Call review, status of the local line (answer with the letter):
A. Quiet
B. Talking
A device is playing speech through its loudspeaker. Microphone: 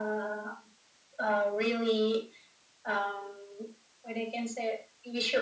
A